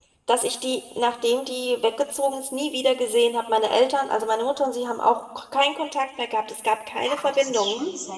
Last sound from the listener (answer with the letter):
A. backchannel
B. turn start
B